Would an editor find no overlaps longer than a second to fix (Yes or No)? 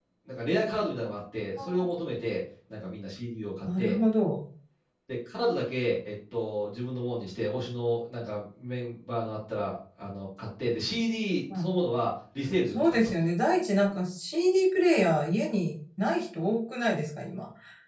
Yes